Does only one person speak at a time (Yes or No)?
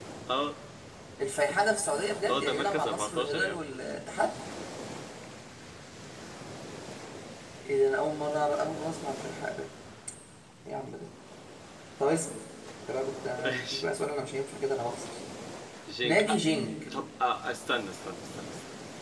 No